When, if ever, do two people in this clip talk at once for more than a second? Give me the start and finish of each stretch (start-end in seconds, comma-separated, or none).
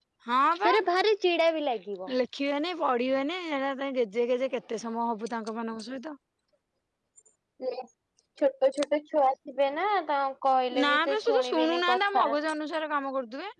10.8-12.3